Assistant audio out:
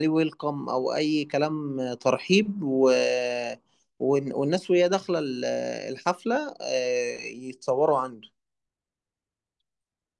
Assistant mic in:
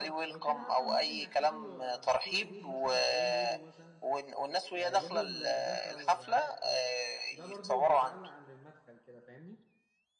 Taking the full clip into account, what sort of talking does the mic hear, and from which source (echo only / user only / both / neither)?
both